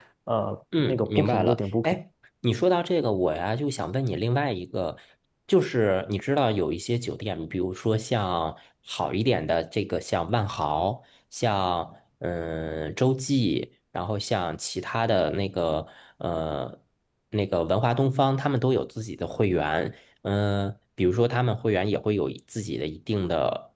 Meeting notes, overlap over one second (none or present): present